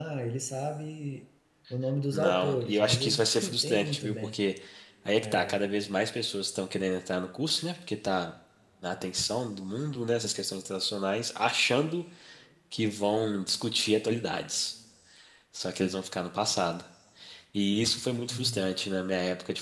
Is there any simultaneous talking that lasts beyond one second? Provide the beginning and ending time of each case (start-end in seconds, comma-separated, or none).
2.1-4.4